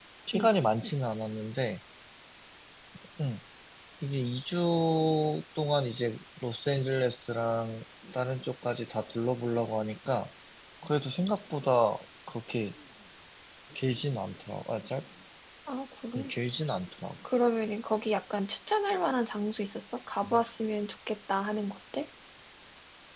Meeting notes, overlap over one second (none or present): none